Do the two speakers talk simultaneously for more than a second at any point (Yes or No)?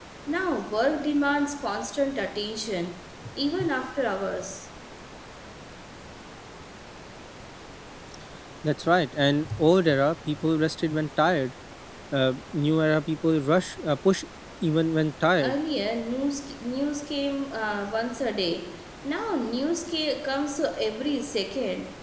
No